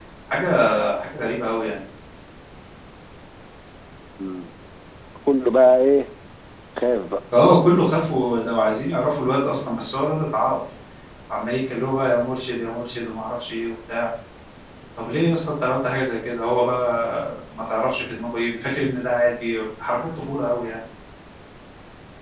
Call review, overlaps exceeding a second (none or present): none